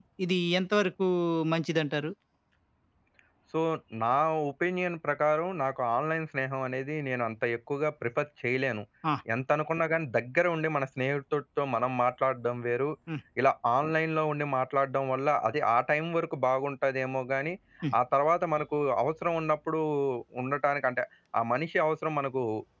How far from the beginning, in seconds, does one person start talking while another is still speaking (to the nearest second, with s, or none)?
none